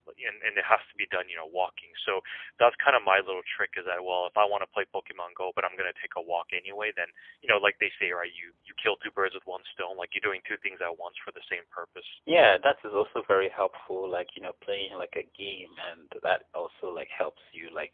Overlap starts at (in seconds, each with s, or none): none